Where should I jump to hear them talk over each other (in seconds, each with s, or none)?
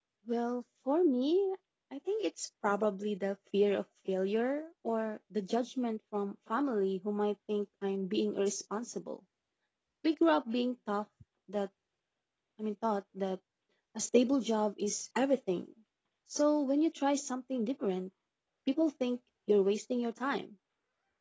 none